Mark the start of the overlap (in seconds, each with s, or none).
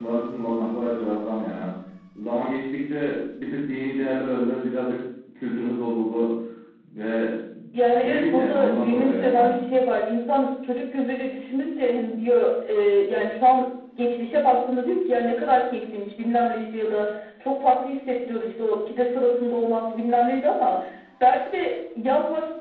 7.9 s